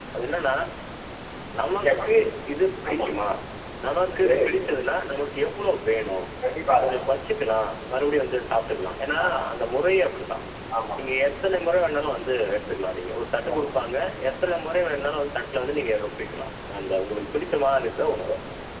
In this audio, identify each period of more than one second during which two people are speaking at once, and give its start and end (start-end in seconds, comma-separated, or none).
none